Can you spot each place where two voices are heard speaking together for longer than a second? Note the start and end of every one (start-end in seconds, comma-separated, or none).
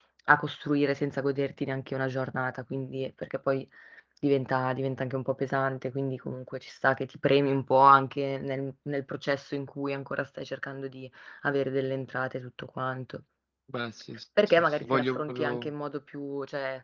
14.5-15.7